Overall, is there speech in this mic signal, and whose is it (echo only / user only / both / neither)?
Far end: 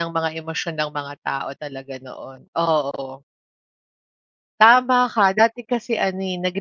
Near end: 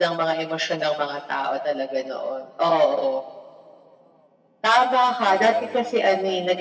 both